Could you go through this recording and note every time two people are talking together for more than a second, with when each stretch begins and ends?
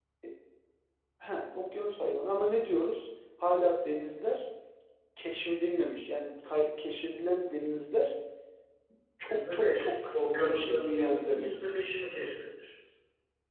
9.3-11.5

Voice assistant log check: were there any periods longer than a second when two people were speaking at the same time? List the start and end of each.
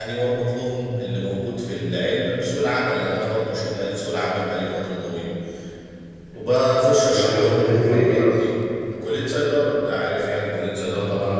7.1-8.5

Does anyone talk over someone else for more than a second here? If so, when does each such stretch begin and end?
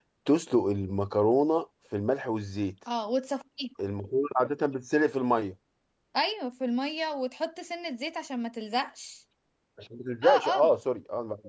none

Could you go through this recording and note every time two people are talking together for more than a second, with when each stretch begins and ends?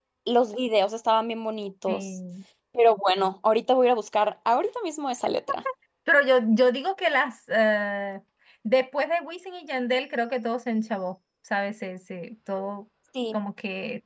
none

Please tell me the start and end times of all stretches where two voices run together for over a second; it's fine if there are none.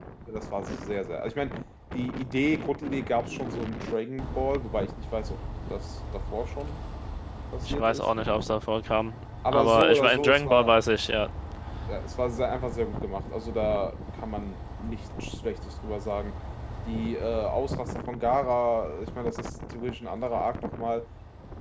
9.5-10.7

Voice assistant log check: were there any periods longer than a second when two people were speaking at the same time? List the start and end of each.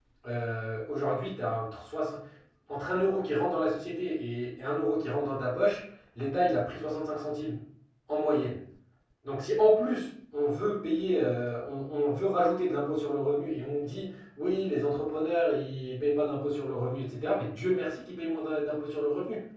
none

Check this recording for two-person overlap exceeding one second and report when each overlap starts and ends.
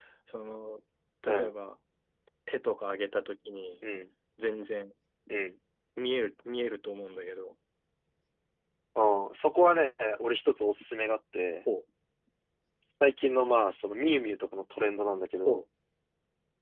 none

